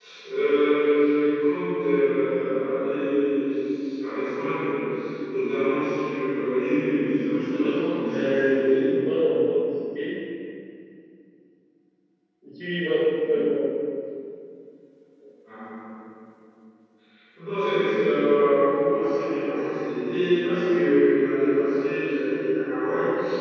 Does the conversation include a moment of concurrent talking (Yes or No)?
Yes